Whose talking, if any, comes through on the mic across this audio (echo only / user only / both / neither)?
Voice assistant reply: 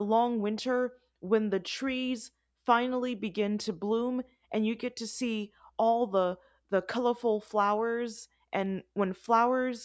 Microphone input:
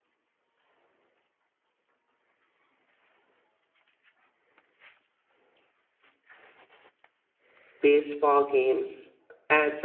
user only